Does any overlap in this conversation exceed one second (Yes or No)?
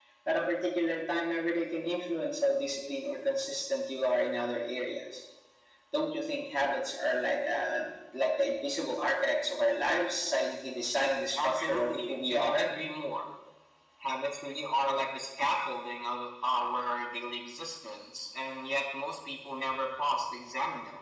Yes